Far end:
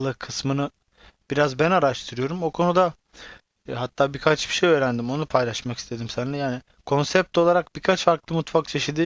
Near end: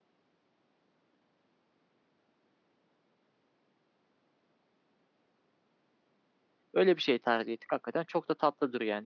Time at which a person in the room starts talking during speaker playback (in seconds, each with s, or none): 6.7 s